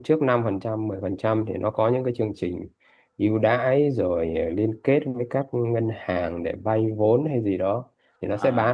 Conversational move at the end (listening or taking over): listening